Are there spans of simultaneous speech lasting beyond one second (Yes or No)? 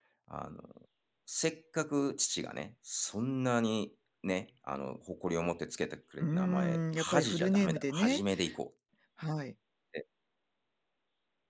Yes